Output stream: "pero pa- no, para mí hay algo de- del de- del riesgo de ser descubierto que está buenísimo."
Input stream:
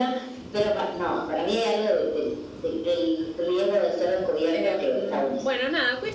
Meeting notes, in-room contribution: present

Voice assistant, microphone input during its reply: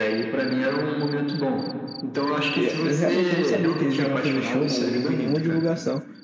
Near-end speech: present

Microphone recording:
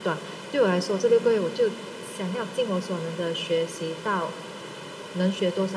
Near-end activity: none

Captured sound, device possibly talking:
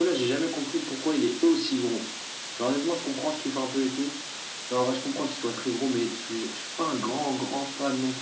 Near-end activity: none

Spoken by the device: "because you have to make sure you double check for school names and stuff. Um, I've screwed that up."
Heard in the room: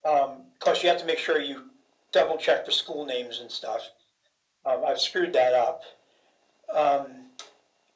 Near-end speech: none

